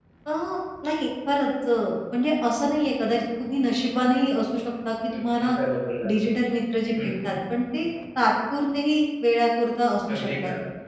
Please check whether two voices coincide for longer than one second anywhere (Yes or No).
No